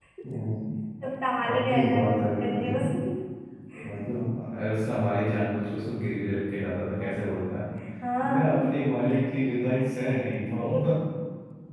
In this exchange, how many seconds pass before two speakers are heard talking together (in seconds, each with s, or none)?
1.5 s